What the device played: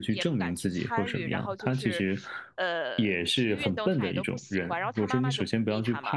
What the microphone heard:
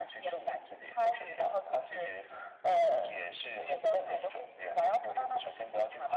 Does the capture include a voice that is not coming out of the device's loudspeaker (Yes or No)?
No